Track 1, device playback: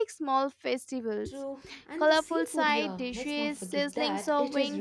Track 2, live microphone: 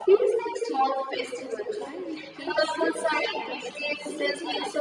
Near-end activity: present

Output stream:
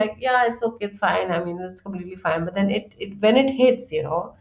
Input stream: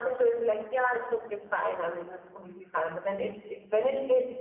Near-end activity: none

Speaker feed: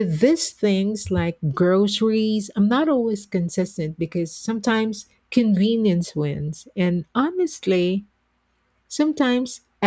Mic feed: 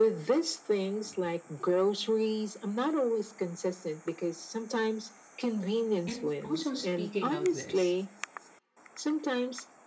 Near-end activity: present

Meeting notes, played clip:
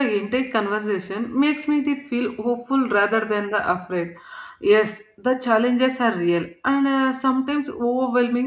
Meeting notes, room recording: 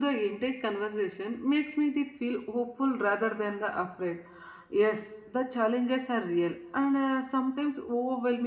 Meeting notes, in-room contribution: none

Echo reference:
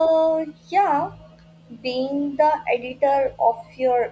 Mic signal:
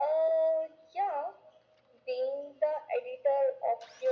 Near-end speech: none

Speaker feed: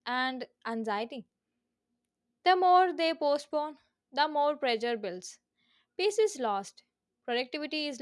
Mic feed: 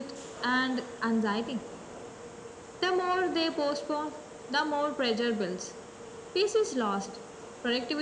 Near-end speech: none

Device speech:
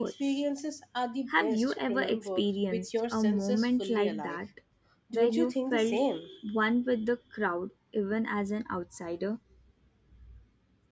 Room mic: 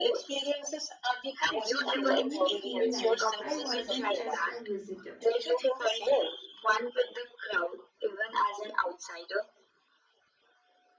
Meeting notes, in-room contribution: present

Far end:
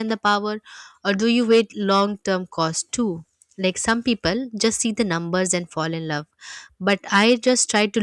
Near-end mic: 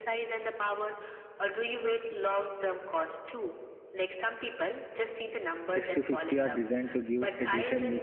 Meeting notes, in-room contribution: present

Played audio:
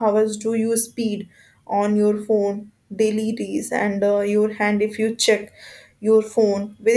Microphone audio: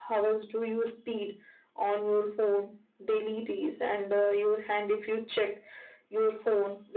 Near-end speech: none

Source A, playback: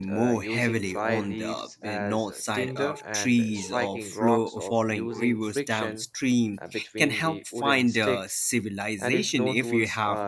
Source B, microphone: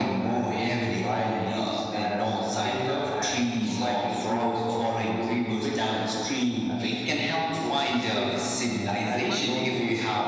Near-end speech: present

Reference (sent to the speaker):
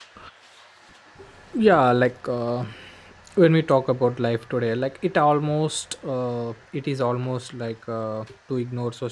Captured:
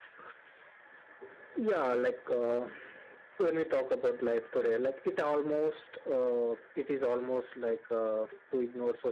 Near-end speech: none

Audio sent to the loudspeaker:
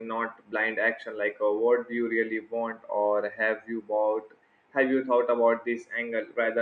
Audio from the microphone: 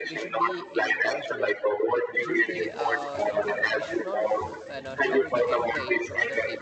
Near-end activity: present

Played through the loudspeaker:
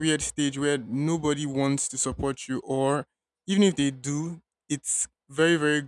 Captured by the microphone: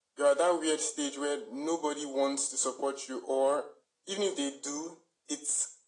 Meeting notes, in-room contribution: none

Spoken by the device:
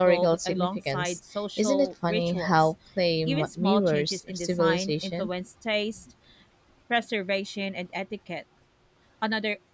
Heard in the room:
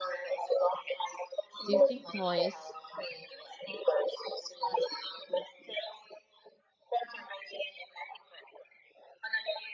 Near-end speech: present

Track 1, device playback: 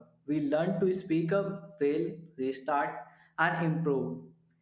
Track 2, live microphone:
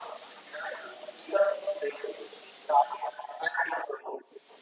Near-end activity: none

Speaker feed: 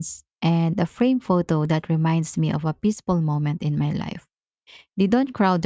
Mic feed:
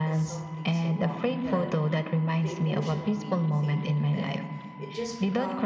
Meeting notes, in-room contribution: present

